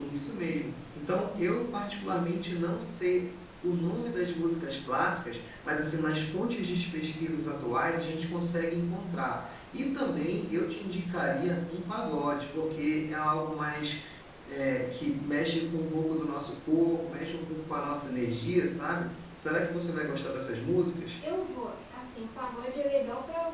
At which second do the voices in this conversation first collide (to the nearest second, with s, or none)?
none